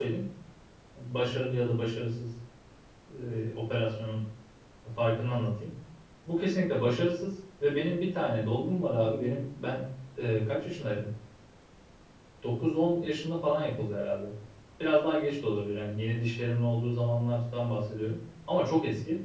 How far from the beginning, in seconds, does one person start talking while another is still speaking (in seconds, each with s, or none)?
none